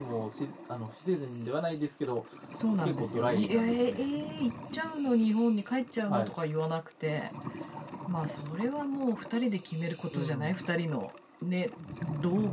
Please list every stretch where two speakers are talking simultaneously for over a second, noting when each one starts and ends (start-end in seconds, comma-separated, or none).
2.8-4.0